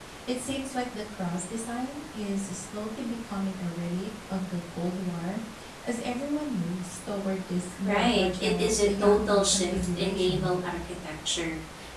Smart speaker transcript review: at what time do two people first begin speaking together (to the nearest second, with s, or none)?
8 s